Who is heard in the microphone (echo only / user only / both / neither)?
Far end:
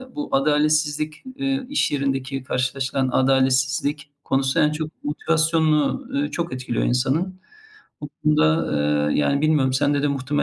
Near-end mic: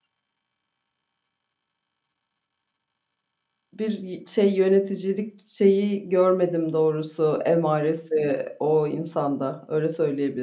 user only